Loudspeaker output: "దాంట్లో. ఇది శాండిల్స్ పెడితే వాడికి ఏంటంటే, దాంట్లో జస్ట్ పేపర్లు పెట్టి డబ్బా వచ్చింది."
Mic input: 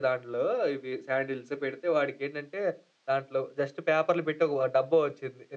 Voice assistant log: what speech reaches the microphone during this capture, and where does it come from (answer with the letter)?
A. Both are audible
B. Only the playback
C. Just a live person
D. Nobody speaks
B